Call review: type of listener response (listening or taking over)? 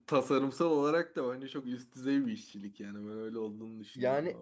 taking over